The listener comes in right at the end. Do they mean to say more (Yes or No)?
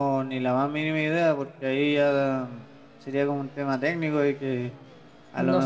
No